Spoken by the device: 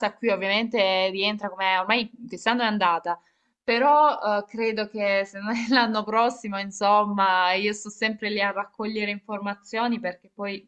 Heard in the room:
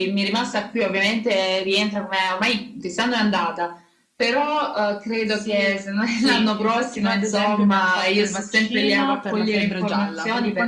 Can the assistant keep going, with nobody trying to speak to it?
No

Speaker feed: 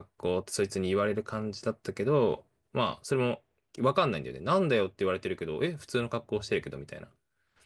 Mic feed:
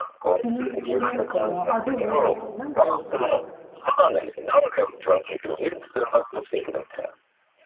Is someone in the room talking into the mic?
Yes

